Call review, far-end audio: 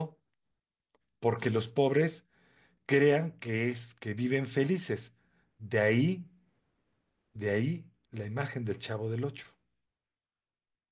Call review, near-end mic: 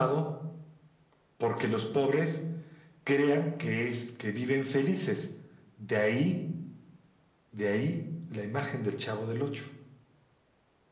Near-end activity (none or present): none